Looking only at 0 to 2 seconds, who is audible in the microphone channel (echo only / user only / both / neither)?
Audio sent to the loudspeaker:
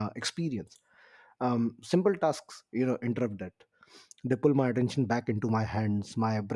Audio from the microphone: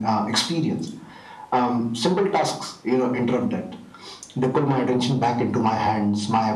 echo only